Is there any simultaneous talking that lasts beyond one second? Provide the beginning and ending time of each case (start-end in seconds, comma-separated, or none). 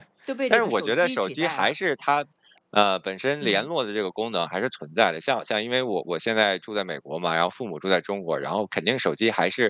0.5-1.7